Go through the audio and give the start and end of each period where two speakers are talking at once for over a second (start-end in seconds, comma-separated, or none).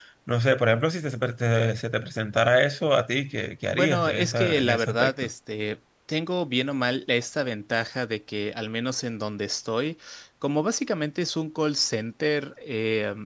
3.7-5.3